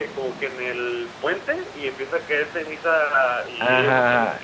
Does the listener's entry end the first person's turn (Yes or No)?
Yes